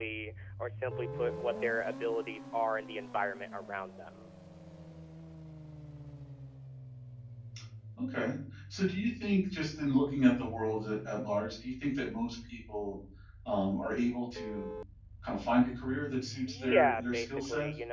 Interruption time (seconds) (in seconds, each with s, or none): 16.5 s